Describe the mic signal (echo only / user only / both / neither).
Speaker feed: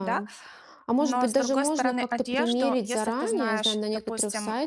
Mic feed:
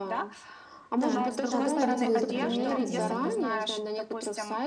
both